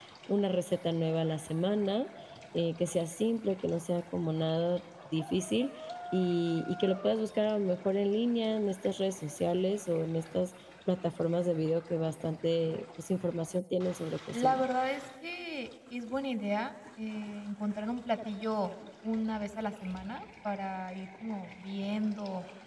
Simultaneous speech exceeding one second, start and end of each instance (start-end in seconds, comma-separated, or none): none